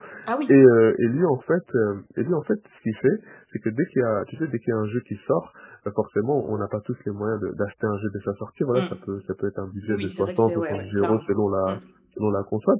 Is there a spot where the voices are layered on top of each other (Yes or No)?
Yes